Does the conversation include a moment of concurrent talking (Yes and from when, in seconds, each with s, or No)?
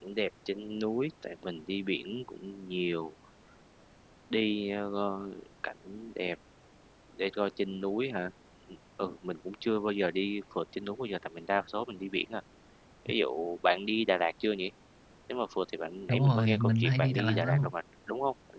Yes, from 16.1 s